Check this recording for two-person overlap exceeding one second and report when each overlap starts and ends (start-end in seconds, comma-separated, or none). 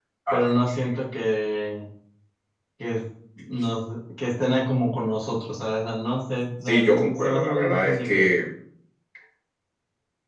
6.6-8.3